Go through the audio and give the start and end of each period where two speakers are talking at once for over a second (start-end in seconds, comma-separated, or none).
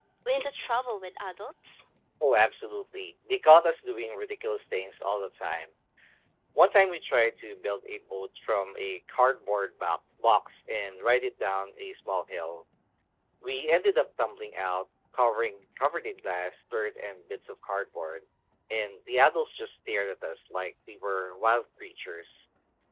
none